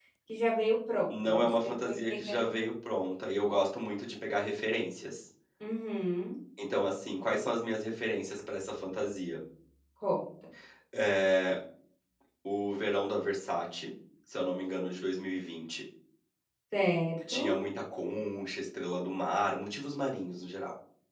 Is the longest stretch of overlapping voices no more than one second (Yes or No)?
No